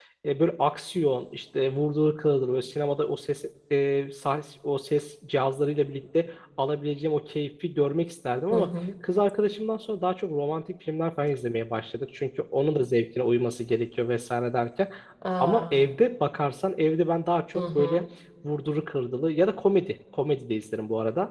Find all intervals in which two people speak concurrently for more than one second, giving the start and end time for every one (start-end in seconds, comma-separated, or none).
none